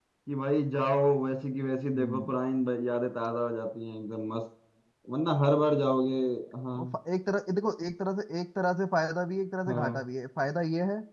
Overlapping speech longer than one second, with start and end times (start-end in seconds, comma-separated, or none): none